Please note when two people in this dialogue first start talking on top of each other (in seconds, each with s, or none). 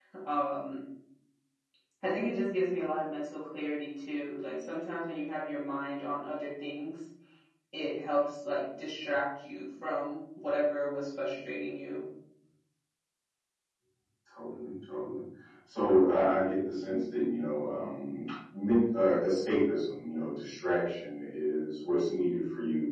none